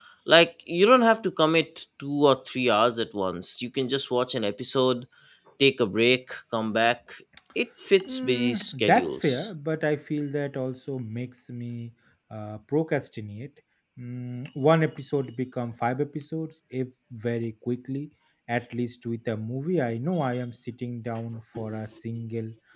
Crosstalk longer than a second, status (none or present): present